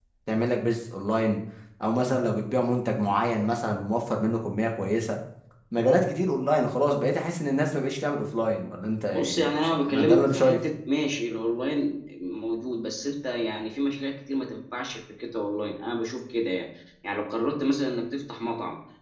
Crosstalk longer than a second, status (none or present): present